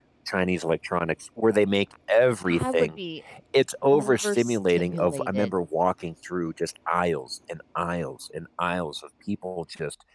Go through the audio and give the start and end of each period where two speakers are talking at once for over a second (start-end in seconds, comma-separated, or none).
3.9-5.5